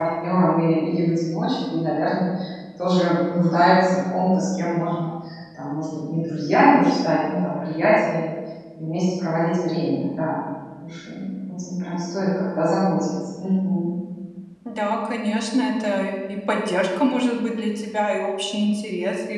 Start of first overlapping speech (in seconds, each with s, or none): none